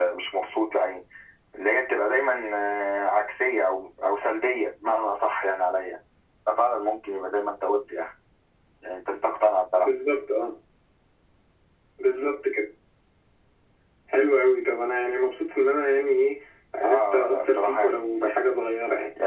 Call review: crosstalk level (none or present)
present